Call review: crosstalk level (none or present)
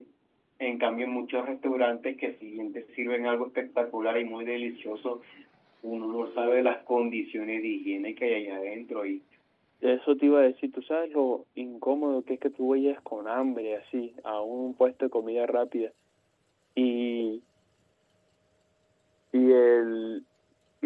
none